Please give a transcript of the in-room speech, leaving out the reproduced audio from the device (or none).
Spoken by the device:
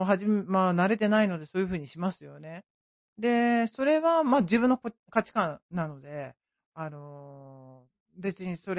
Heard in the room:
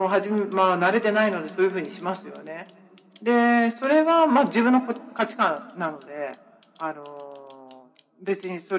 none